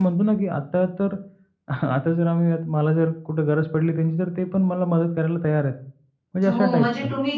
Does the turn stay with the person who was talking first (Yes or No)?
No